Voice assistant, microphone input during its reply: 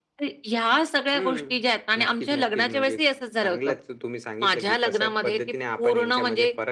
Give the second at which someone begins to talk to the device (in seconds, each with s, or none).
none